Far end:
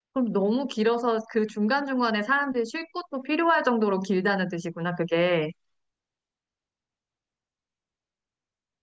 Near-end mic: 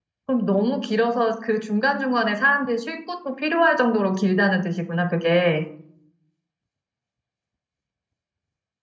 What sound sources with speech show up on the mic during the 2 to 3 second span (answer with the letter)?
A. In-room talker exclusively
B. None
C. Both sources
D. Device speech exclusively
D